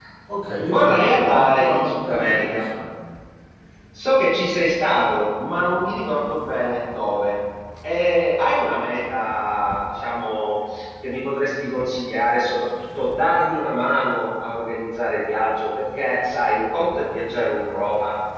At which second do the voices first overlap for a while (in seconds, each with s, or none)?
0.7 s